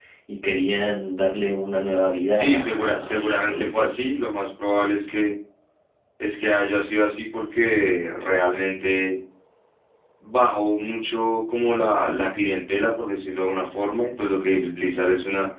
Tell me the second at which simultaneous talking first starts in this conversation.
2.3 s

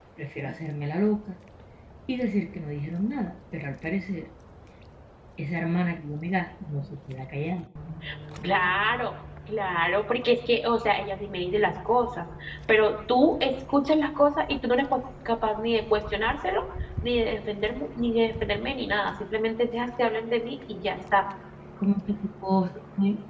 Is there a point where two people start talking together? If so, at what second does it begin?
none

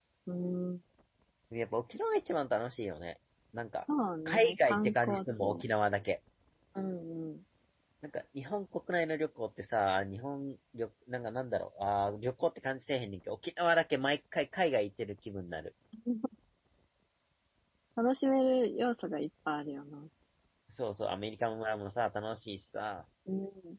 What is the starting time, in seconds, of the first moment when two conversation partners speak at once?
4.3 s

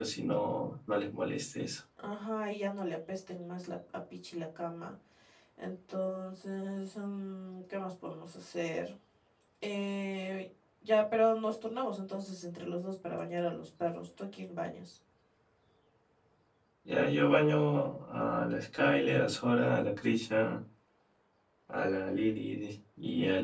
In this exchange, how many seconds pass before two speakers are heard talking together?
none

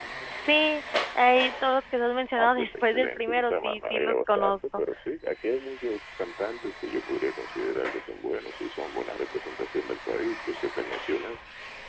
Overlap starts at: 2.4 s

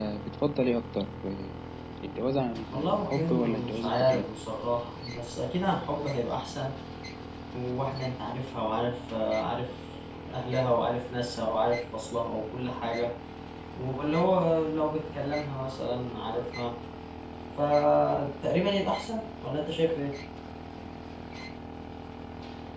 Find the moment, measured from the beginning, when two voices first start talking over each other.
2.7 s

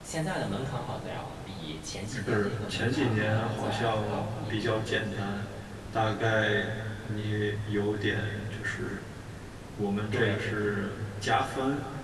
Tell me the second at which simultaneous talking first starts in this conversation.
2.3 s

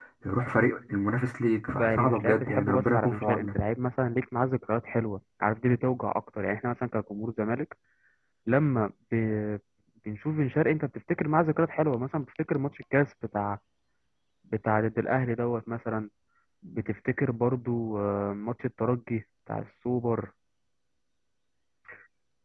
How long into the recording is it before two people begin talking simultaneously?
1.8 s

